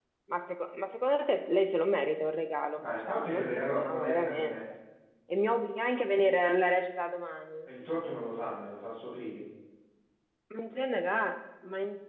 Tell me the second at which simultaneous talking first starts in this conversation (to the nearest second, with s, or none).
3 s